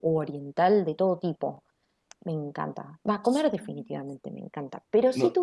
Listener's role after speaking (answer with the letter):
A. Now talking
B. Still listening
B